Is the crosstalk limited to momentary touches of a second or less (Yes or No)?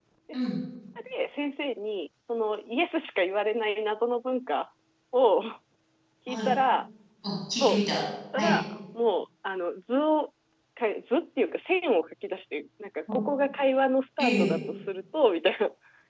Yes